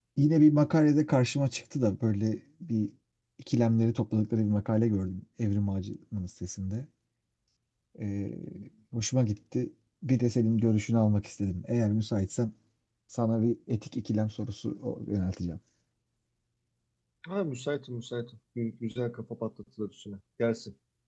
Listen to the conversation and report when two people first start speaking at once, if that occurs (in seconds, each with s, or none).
none